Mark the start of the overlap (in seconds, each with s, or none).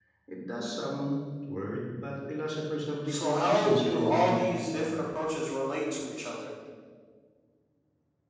3.1 s